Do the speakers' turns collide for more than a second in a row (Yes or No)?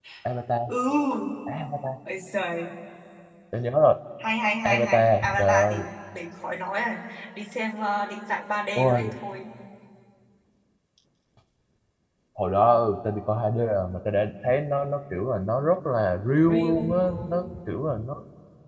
Yes